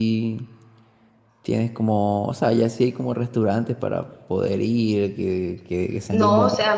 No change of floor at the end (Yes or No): No